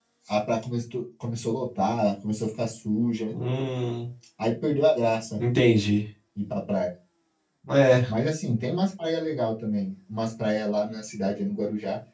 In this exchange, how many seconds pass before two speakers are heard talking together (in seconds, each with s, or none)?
none